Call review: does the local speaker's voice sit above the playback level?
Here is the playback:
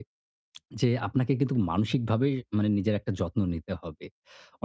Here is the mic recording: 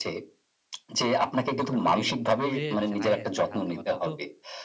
No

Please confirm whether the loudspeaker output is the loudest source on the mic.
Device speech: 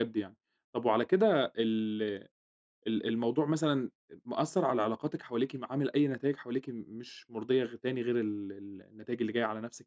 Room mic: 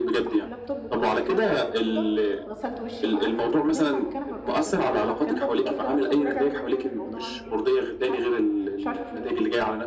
Yes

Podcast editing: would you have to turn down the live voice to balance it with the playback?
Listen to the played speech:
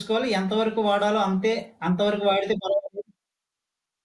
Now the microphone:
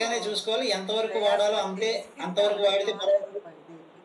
No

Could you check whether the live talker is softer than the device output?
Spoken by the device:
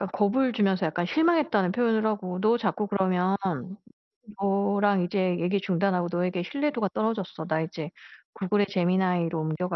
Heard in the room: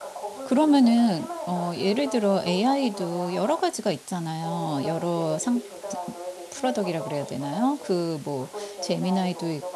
No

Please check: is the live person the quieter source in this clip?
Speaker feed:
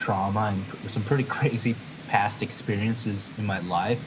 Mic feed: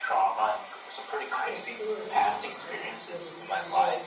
Yes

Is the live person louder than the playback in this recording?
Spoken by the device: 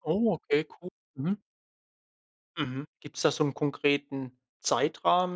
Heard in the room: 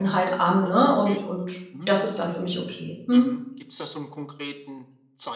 Yes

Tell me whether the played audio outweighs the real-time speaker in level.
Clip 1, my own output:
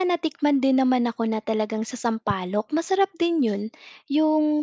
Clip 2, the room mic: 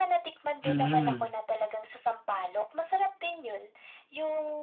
No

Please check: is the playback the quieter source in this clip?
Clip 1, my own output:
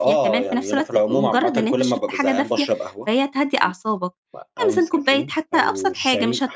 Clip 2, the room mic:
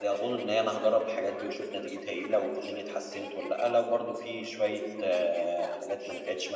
Yes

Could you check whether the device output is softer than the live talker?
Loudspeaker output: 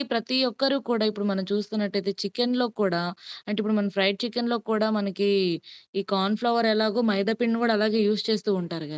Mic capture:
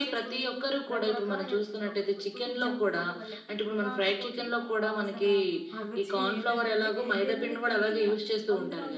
No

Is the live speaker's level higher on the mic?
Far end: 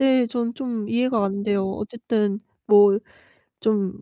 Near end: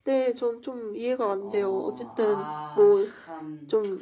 No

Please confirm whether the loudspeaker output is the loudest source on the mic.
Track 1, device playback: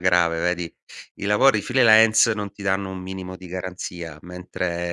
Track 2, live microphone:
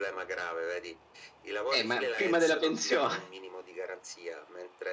No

